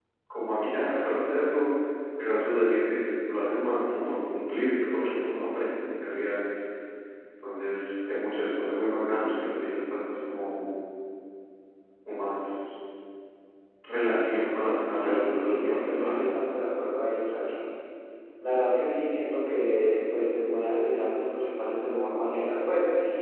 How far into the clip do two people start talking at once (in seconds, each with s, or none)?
14.9 s